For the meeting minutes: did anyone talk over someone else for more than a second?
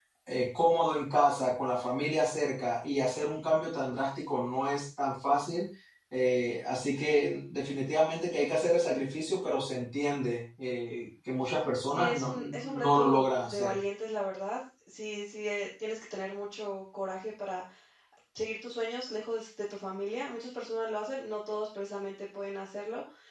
Yes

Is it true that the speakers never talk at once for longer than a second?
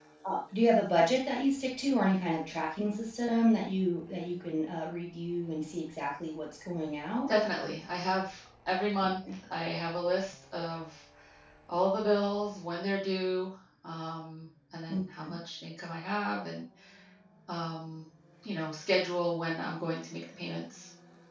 Yes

